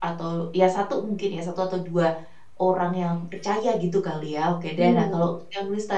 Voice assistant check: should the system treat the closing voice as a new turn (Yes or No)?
No